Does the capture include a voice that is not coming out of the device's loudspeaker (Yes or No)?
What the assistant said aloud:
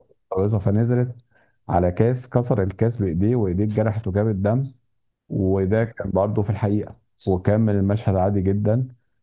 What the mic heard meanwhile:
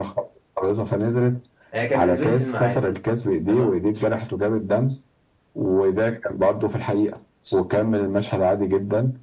Yes